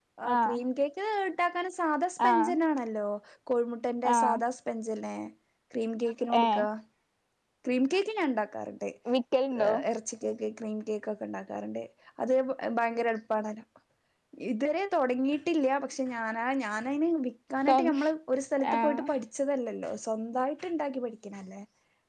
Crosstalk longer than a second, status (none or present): none